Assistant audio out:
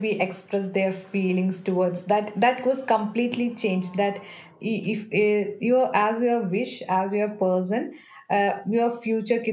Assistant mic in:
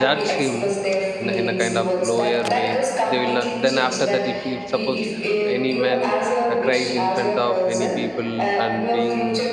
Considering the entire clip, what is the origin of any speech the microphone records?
both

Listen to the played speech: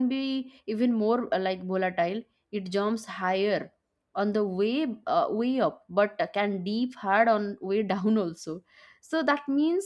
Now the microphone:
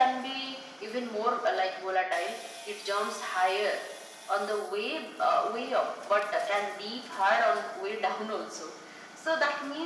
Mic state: echo only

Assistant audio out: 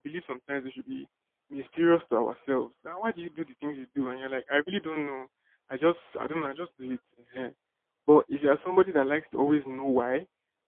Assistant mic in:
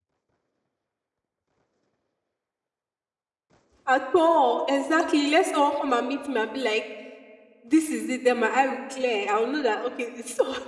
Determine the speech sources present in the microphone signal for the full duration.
user only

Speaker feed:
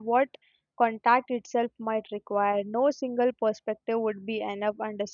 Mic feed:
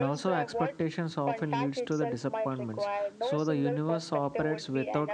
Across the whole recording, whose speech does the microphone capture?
both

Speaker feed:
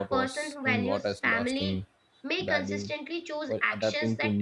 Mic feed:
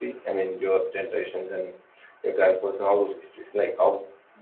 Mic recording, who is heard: user only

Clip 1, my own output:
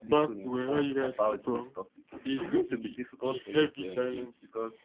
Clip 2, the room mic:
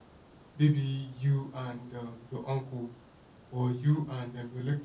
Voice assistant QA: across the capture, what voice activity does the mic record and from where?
user only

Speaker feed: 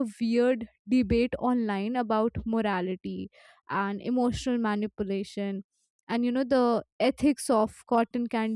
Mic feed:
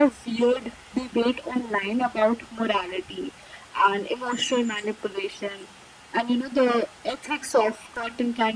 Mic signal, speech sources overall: echo only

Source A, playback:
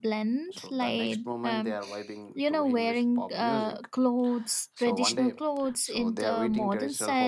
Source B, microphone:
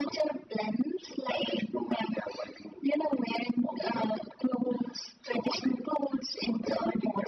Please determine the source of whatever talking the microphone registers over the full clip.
echo only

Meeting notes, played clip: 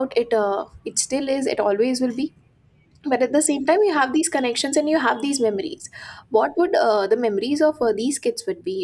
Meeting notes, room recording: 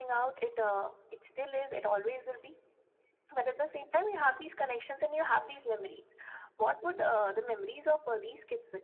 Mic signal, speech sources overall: echo only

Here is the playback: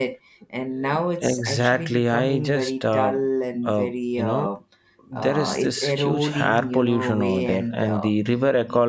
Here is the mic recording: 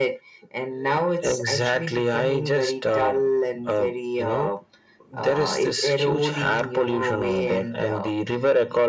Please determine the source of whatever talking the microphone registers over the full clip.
echo only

